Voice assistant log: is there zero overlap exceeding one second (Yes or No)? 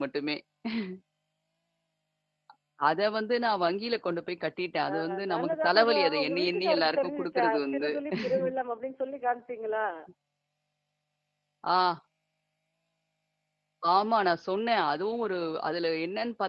No